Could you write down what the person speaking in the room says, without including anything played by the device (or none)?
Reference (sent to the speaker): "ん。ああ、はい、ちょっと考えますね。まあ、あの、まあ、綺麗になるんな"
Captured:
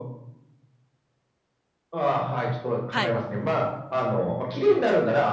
はい。